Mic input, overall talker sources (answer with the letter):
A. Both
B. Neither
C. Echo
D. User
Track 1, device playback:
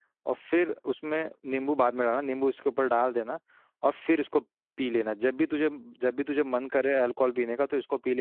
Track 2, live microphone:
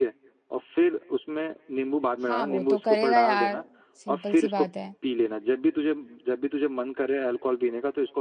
A